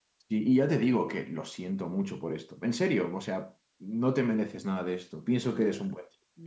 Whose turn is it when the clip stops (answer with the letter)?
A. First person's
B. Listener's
B